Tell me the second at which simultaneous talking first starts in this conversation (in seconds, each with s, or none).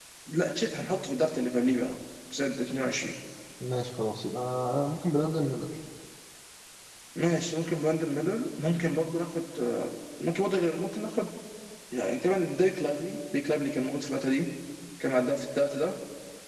none